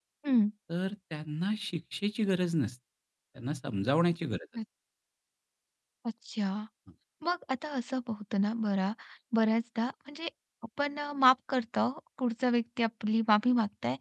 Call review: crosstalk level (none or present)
none